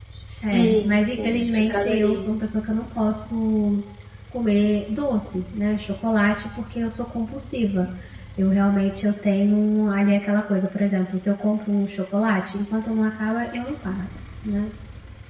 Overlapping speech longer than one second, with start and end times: 0.5-2.2

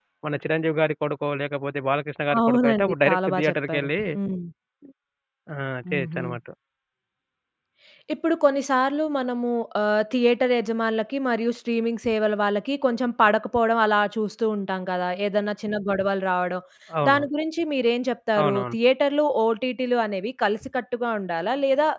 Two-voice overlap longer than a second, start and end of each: 2.5-3.9

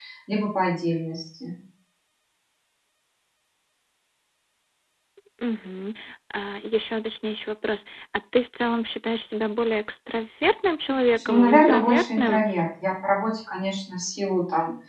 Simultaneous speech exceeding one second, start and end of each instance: 11.1-12.4

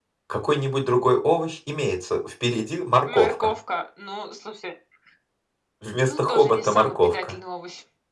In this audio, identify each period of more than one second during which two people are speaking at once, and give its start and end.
6.0-7.3

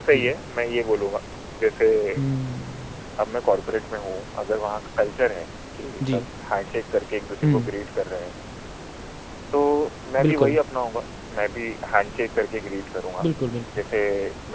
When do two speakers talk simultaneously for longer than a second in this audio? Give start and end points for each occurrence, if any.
none

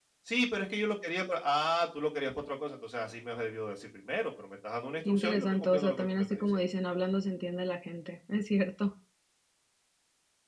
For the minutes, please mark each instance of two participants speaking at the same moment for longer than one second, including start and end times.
5.0-6.6

